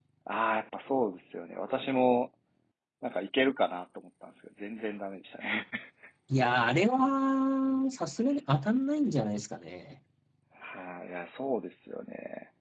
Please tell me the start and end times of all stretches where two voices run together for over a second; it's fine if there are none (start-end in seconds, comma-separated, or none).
none